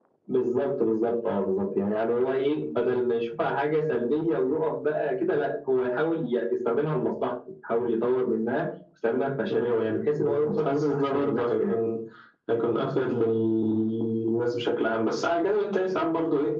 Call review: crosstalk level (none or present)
present